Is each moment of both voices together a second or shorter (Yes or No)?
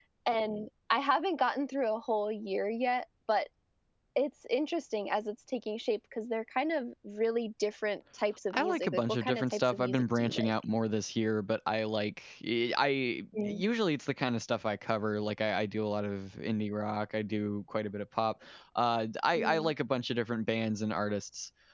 No